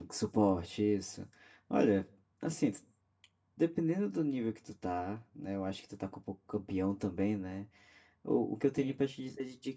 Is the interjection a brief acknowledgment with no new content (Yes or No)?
Yes